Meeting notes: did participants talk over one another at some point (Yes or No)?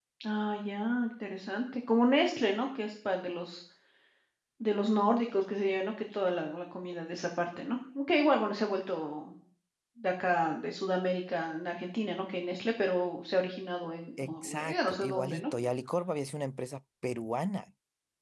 Yes